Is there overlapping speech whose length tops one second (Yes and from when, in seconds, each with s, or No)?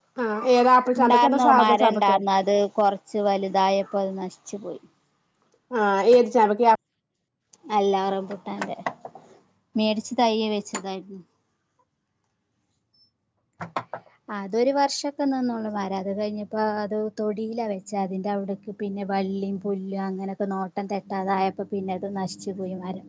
Yes, from 1.0 s